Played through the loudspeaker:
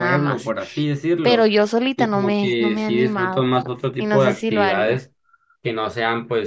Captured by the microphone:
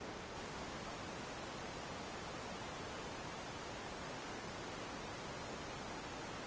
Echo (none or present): none